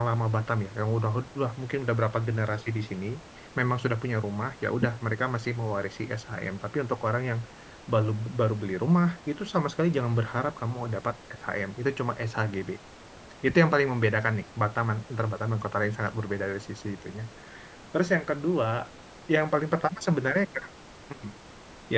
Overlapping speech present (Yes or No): No